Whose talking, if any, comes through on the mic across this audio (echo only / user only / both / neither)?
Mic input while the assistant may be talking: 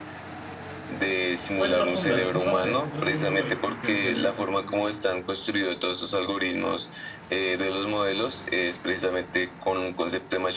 both